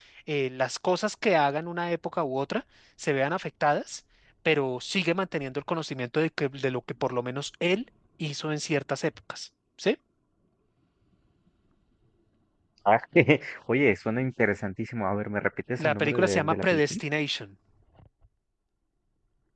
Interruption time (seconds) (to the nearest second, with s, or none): 16 s